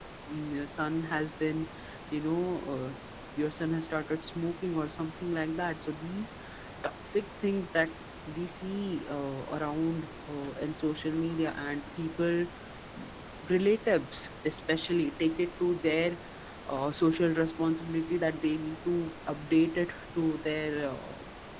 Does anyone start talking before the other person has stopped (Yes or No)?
No